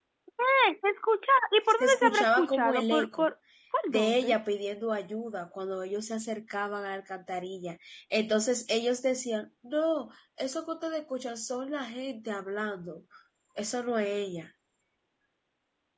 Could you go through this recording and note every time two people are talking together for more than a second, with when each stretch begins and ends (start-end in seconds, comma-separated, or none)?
1.8-3.3